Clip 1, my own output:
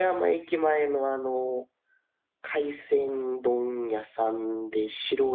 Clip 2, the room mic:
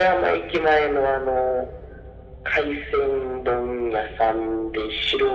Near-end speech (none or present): none